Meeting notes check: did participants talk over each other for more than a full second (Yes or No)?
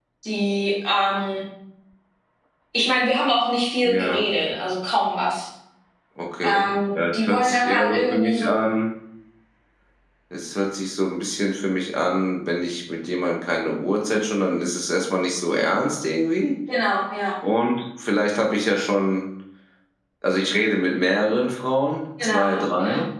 Yes